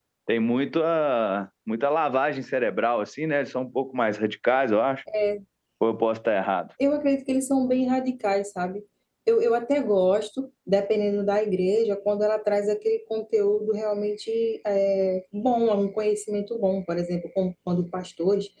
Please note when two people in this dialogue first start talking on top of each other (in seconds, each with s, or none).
none